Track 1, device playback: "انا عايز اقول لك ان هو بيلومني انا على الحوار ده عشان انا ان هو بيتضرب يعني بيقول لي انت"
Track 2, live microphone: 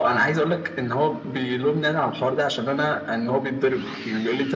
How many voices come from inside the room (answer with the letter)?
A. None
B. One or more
A